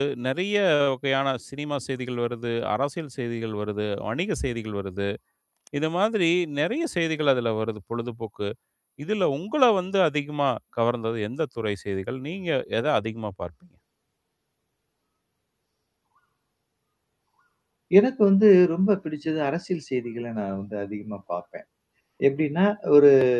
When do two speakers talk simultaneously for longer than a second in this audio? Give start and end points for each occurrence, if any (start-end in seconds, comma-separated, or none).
none